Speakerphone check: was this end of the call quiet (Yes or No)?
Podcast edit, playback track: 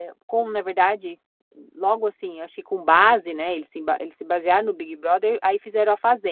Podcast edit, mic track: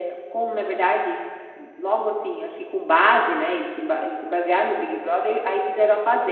Yes